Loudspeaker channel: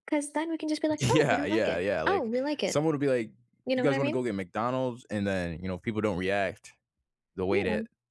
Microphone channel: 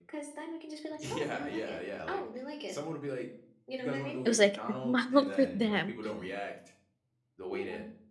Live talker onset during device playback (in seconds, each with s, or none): 4.2 s